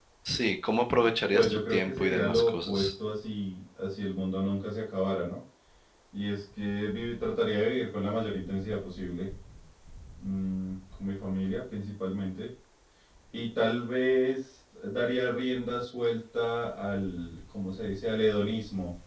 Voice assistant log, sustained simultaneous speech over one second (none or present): present